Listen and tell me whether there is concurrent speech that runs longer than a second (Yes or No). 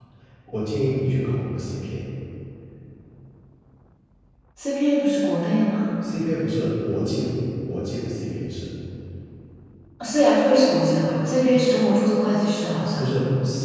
No